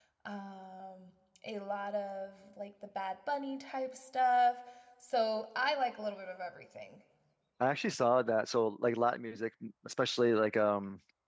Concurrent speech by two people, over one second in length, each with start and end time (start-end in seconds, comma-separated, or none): none